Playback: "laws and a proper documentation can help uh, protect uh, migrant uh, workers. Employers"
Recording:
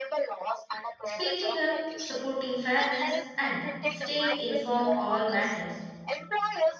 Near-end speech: present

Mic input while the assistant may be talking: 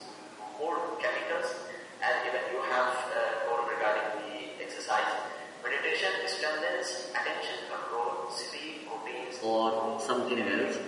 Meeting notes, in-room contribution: present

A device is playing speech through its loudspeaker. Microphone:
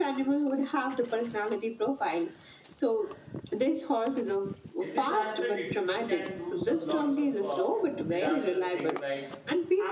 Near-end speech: present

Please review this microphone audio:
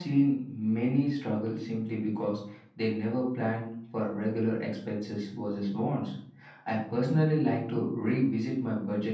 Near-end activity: none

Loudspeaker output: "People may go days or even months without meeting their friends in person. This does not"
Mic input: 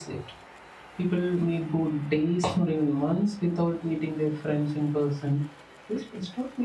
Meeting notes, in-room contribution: none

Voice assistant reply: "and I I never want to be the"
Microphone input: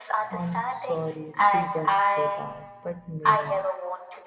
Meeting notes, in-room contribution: present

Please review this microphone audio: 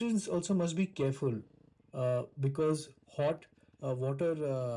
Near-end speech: none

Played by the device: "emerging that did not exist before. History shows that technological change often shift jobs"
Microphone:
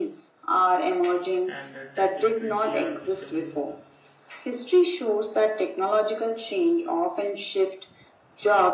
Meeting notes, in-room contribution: present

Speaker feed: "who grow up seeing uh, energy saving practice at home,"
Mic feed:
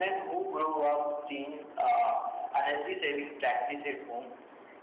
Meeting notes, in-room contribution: none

